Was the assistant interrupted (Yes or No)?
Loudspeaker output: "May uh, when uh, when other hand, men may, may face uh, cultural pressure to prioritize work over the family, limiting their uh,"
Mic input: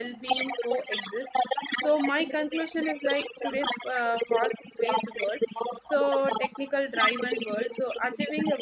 Yes